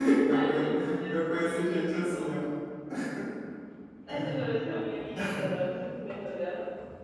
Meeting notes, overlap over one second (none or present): present